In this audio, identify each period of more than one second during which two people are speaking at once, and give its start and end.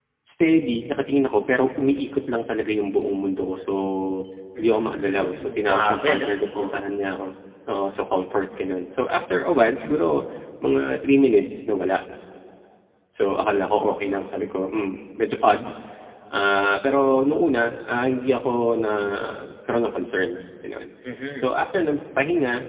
4.6-6.8

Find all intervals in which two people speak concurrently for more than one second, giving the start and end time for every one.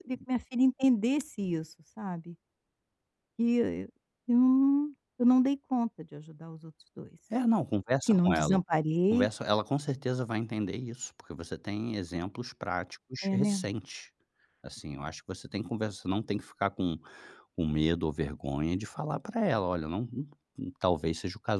none

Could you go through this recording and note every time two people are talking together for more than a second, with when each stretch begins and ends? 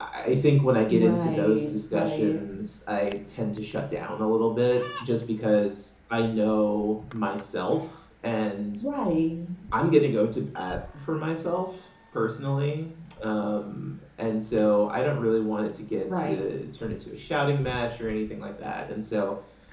0.9-2.4

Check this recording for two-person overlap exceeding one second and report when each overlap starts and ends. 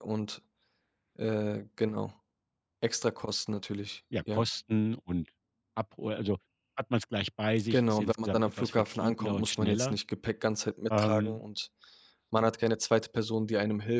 7.7-9.9

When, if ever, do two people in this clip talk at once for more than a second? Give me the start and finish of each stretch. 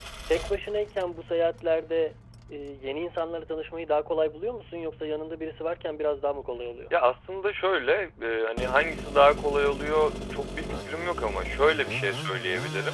none

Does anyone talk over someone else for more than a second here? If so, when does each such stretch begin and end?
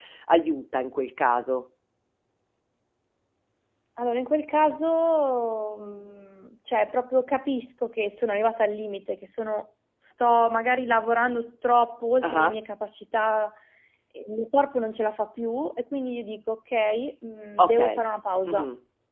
none

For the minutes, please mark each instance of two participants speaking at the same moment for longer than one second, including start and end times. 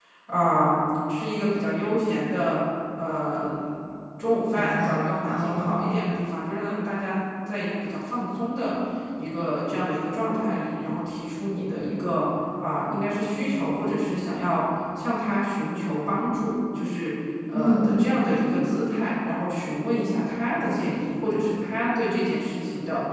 4.5-5.8

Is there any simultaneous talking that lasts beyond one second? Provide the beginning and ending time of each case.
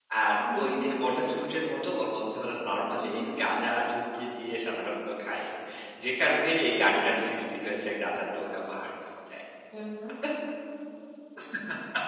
none

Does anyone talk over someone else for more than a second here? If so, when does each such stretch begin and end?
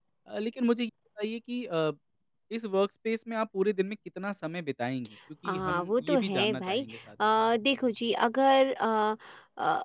5.5-6.8

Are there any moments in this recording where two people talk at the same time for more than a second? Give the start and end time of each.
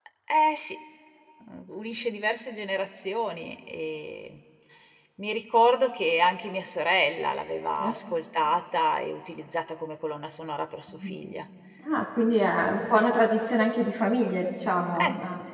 none

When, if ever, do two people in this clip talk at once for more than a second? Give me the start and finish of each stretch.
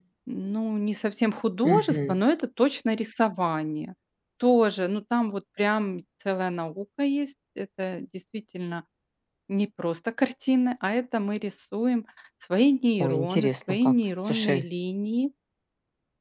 13.0-14.6

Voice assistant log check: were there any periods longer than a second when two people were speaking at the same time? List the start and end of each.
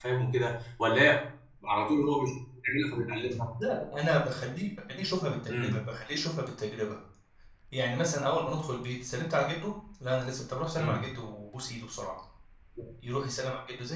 none

